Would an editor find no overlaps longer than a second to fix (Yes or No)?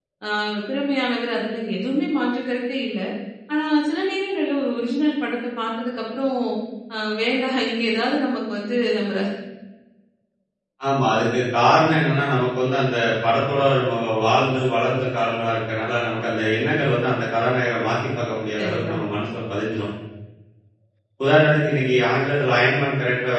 Yes